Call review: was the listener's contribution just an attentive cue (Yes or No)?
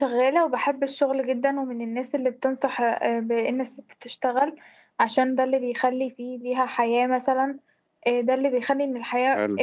Yes